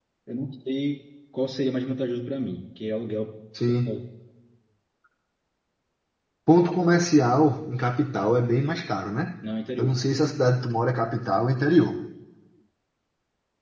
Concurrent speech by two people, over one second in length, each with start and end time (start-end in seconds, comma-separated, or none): none